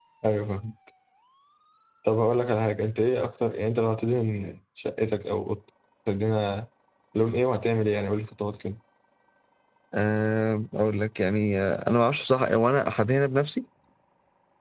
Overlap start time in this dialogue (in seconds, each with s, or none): none